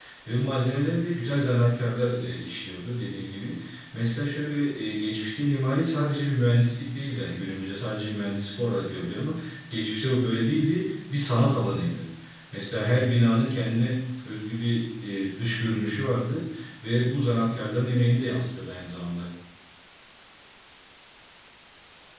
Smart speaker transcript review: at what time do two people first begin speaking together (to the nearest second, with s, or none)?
none